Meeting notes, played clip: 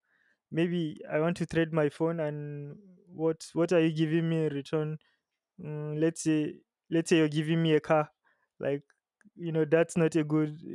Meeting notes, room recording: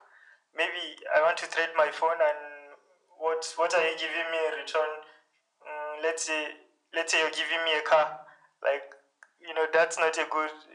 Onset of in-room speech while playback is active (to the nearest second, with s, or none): none